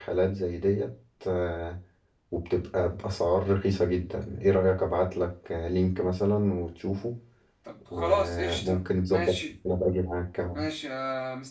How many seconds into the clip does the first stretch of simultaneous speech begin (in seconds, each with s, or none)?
7.9 s